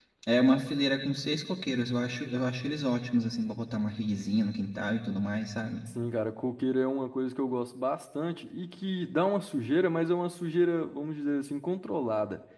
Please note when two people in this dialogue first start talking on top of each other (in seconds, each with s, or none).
none